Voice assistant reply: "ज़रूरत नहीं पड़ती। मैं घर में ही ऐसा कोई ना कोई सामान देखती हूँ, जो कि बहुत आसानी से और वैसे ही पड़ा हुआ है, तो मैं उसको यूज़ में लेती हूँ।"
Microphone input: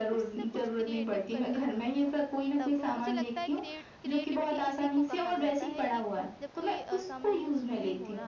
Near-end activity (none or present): present